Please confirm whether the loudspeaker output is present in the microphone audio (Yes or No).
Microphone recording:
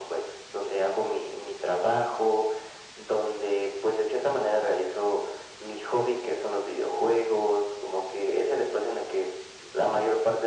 Yes